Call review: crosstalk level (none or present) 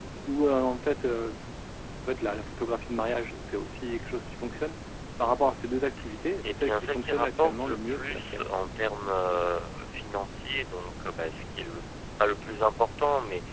present